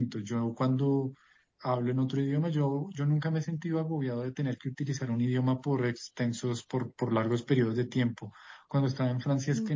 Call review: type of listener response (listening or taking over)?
listening